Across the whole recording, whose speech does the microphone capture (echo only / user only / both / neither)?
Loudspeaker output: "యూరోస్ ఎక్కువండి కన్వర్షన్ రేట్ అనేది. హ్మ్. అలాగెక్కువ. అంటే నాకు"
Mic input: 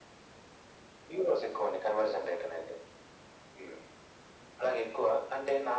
echo only